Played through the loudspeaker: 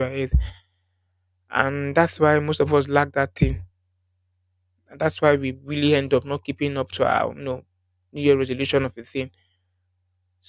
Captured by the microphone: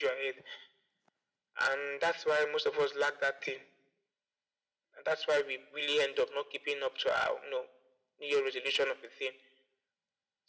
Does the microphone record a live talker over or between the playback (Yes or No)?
No